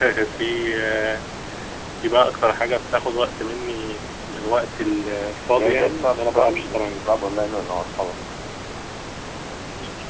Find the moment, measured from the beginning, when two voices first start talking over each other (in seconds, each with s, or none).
5.5 s